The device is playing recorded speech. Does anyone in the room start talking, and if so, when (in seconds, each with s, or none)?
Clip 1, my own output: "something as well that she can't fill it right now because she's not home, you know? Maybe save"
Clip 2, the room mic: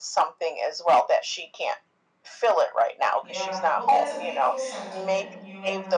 3.2 s